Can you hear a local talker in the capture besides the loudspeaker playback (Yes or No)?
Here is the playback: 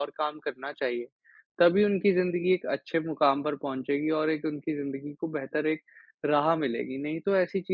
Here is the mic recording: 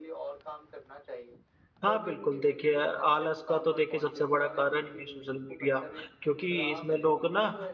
Yes